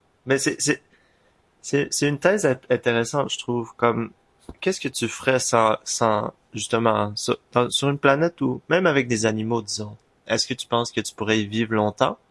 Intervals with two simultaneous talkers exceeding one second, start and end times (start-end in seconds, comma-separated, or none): none